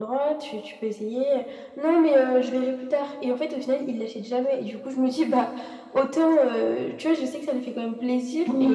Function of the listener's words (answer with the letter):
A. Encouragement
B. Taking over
A